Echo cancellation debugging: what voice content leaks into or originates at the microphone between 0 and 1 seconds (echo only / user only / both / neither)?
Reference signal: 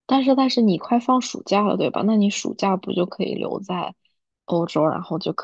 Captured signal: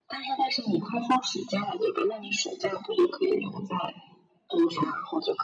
echo only